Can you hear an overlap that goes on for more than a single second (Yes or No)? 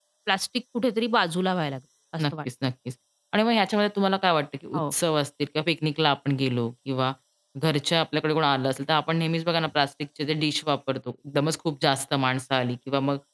No